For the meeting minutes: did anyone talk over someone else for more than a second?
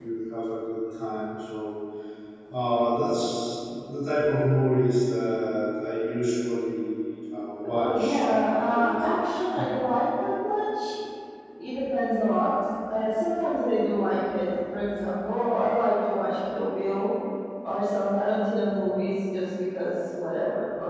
Yes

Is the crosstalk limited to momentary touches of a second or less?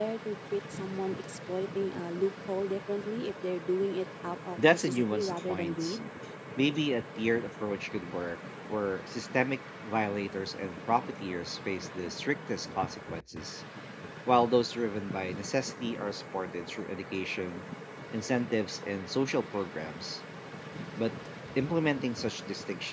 No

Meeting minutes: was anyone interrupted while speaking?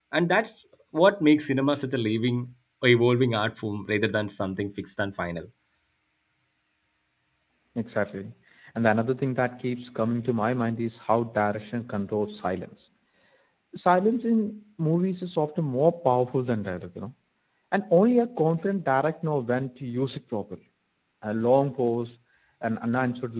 No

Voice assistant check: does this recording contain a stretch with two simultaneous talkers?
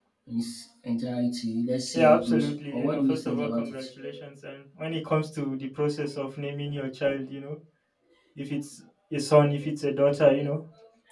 Yes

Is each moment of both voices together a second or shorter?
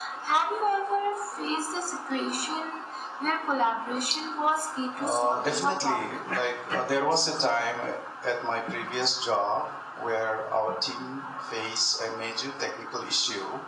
No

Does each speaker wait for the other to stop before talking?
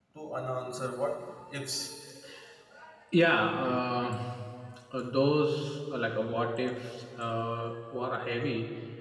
Yes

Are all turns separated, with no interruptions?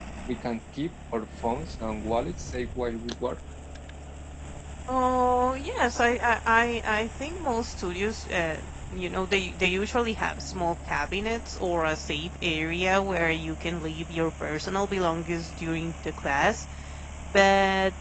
Yes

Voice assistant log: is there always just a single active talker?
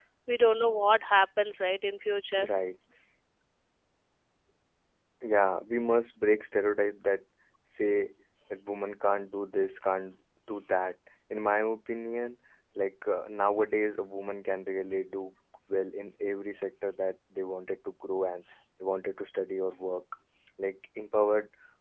Yes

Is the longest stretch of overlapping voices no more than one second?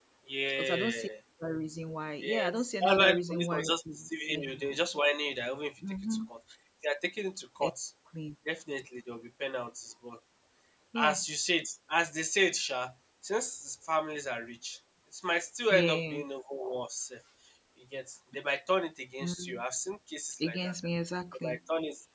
No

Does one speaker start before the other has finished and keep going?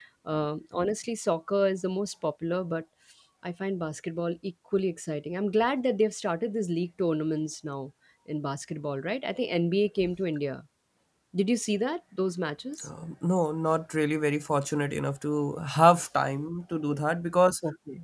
No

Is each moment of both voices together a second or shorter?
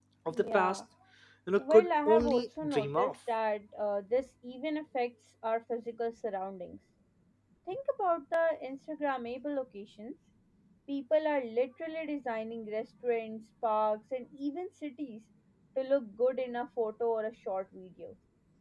No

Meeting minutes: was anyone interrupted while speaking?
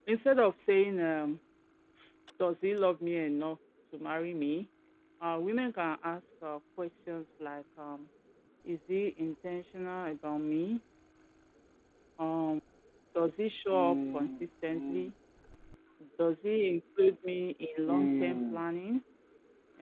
Yes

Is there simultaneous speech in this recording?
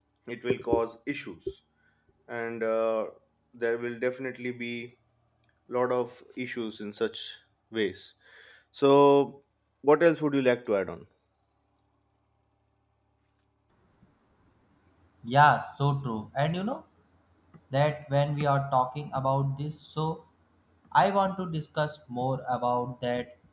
No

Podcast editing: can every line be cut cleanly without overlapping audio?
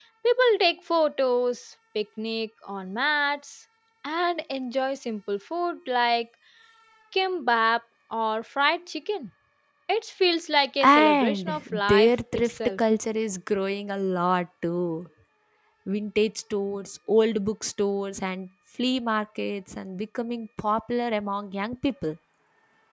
No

